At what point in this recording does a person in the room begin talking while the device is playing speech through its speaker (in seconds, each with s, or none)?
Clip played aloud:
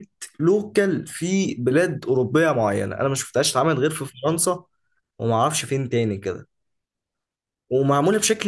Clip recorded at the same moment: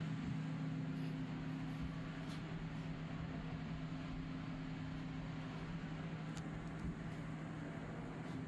none